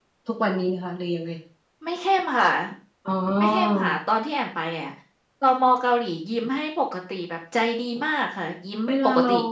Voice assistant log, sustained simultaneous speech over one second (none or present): none